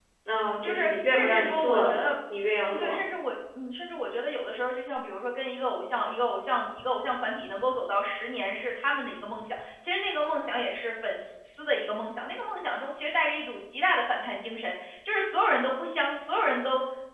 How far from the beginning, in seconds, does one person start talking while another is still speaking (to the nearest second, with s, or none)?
1 s